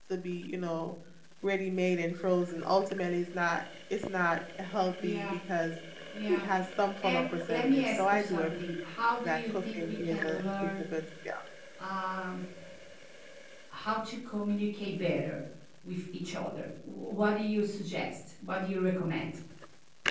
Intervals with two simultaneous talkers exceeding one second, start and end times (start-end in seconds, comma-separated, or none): 7.0-8.5, 9.2-10.7